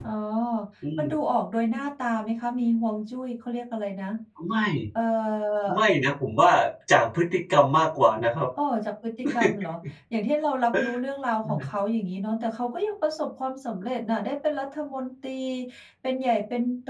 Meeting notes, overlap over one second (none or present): none